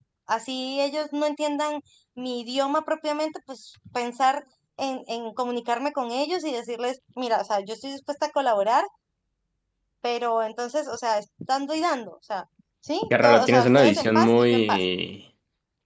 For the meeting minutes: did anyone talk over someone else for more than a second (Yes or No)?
Yes